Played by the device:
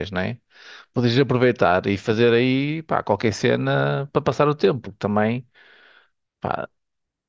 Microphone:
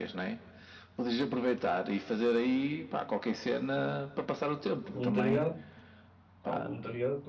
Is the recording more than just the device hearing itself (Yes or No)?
Yes